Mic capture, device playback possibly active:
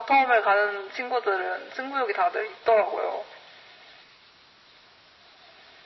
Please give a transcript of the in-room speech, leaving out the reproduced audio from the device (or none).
none